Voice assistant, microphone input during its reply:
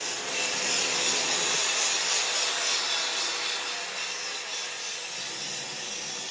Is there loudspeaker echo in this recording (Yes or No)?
No